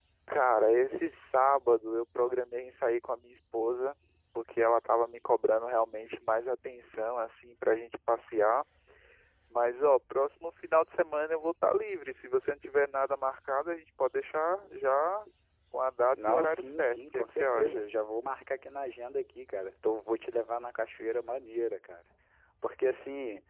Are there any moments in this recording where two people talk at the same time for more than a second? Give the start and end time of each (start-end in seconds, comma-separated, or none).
16.3-17.8